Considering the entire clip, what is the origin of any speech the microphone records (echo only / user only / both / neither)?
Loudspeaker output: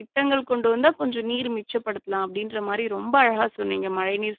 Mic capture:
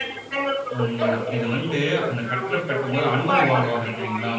both